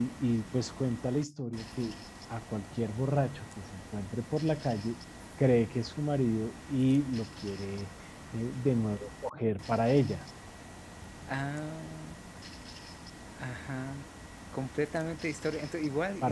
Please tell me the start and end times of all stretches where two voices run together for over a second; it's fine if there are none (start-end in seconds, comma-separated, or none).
none